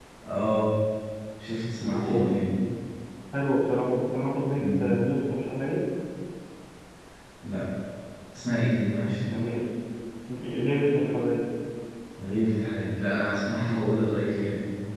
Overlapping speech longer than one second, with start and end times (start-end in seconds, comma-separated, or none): none